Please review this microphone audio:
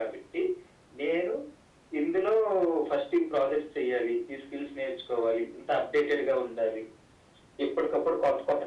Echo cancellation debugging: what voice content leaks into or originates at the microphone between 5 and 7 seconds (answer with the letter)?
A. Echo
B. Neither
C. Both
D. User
A